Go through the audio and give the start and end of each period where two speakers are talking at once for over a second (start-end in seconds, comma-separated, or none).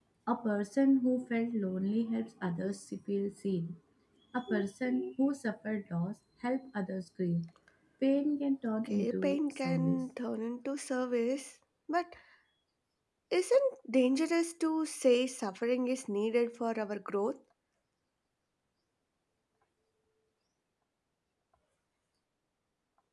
8.8-10.1